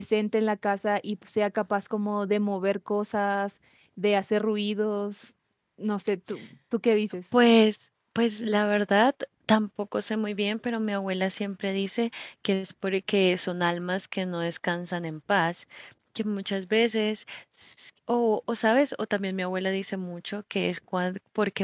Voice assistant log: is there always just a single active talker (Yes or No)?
Yes